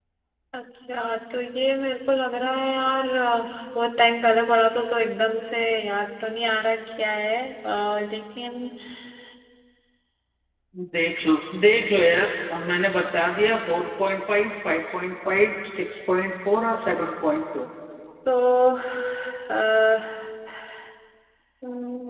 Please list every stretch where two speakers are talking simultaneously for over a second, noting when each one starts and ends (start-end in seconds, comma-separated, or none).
none